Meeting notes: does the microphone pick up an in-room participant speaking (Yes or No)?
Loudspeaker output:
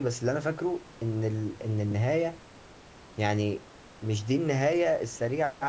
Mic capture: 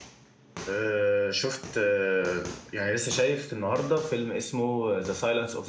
Yes